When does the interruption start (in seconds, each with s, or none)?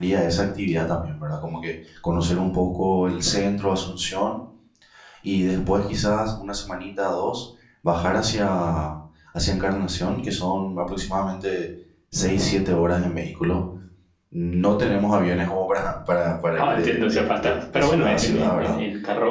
16.6 s